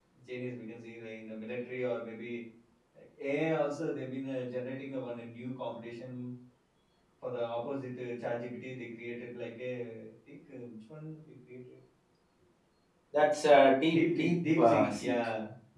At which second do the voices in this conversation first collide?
13.9 s

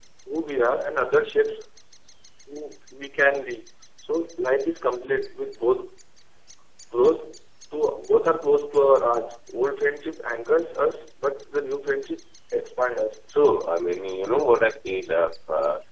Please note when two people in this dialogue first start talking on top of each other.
none

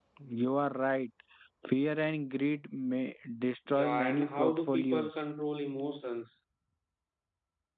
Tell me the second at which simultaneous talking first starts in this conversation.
3.7 s

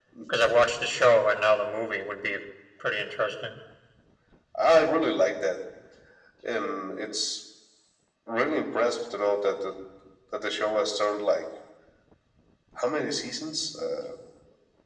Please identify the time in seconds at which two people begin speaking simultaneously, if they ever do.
none

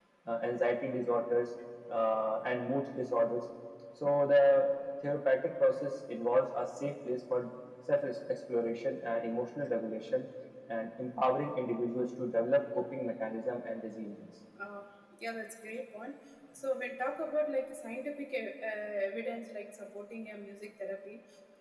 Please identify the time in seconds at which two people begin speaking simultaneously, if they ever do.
none

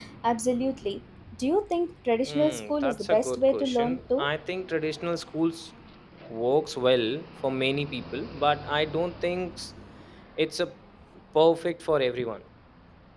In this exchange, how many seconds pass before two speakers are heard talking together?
2.2 s

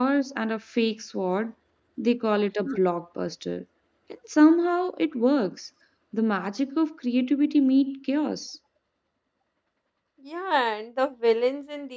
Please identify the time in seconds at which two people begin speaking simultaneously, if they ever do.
none

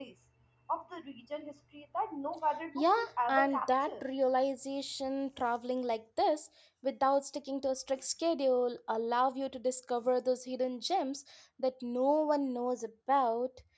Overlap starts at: 2.8 s

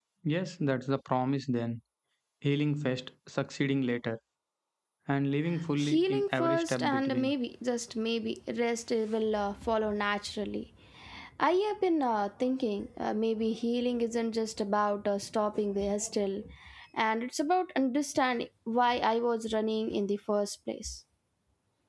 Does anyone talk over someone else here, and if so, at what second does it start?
5.8 s

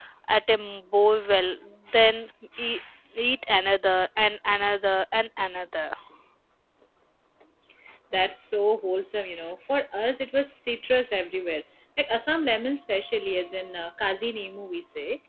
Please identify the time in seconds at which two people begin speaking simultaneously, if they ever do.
none

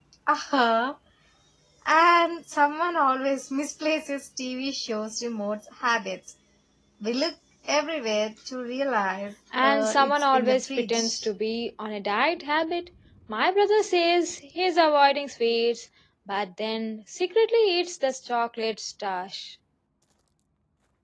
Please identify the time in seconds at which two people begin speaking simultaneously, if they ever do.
9.5 s

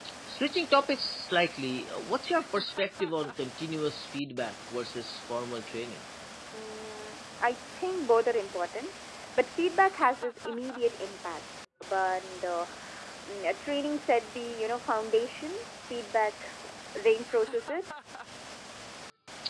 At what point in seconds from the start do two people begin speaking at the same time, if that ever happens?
none

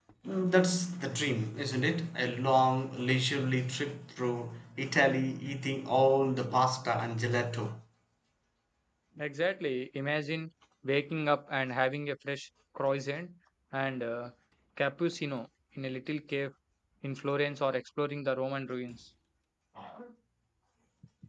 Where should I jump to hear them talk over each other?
none

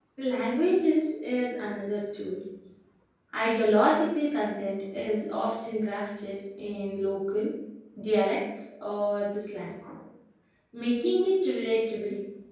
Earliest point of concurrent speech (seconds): none

